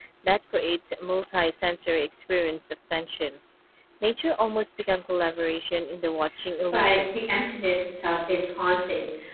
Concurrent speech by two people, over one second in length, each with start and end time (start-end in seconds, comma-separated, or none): none